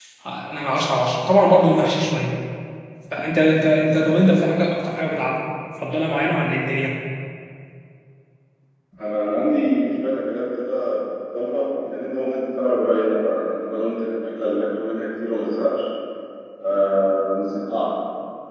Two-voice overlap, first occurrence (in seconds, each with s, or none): none